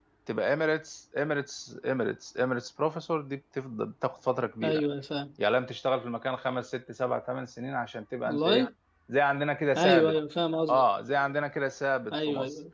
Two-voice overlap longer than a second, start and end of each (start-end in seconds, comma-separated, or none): none